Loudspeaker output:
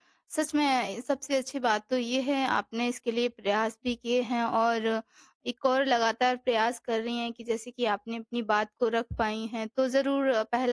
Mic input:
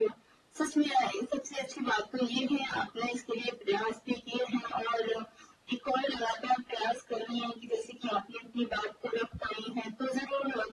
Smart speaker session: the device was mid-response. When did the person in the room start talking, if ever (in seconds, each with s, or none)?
none